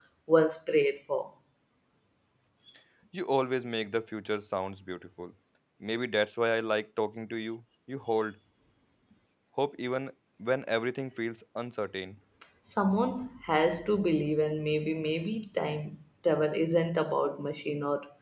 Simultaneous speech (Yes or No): No